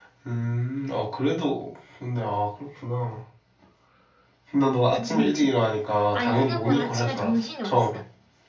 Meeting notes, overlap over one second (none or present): present